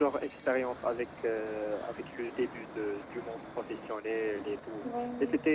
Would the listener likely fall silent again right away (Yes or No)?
Yes